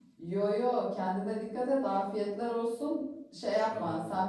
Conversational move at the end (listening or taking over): listening